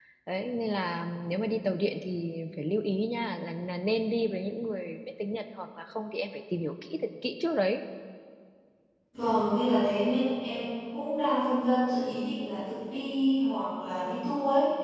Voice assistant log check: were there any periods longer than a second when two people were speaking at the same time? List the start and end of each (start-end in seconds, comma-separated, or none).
none